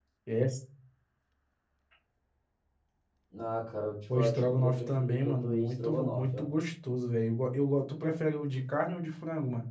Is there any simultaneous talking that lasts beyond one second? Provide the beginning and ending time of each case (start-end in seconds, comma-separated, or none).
4.2-6.5